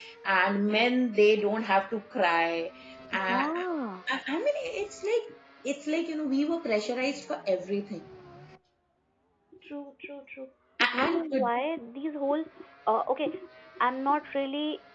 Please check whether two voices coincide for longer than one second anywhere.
No

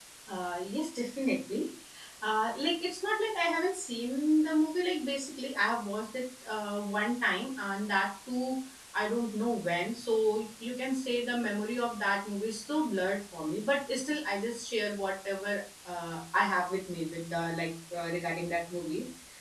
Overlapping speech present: No

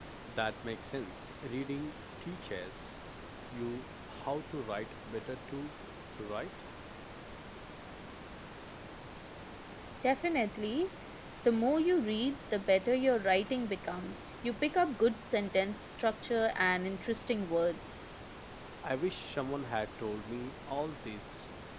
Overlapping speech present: No

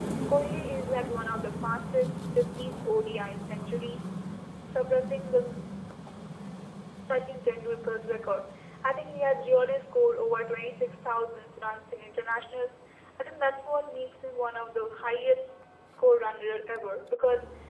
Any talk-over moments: No

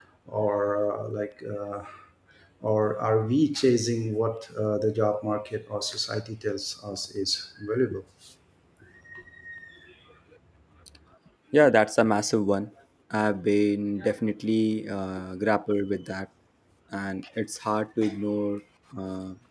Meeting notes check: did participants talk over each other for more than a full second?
No

